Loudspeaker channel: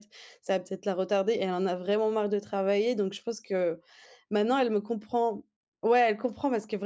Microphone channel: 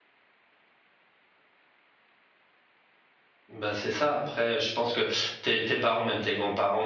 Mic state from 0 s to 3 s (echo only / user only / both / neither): neither